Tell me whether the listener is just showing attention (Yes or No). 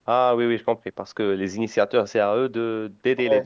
No